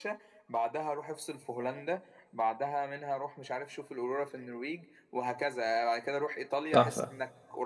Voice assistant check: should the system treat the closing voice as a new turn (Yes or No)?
Yes